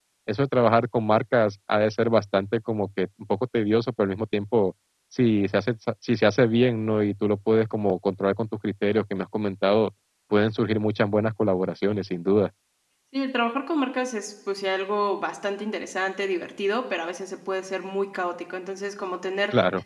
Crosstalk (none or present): none